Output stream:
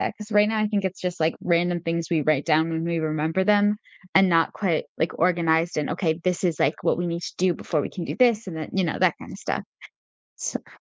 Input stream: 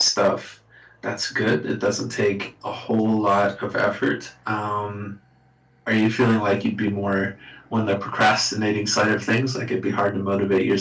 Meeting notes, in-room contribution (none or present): present